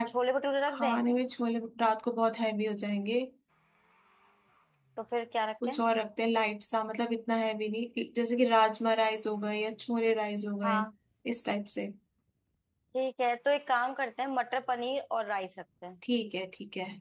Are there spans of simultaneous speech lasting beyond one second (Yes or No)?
No